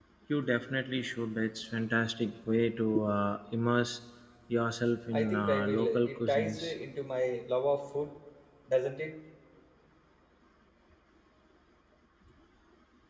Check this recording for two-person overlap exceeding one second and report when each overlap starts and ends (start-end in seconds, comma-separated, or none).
5.1-6.7